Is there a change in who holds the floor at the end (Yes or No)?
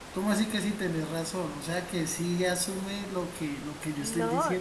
Yes